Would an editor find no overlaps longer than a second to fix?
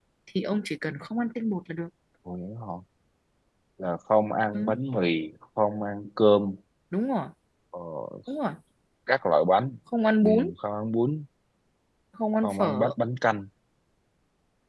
Yes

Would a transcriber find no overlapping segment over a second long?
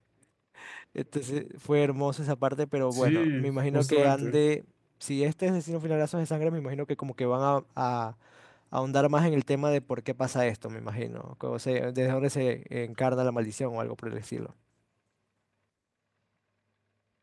No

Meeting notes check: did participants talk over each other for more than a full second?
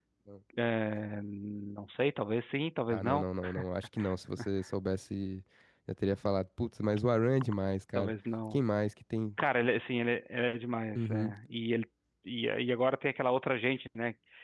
No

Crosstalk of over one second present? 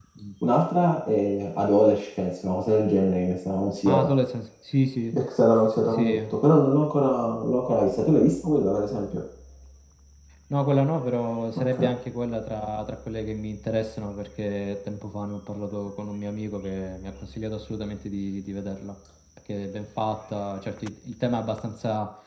No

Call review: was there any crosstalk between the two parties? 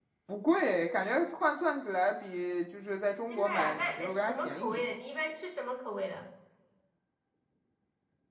Yes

